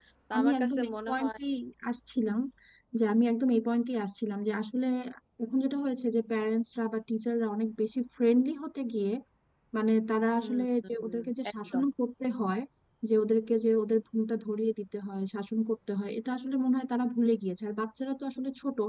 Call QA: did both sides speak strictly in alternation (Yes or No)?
No